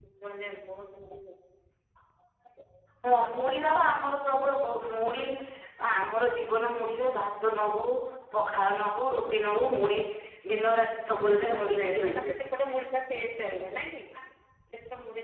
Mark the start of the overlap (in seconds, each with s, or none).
11.1 s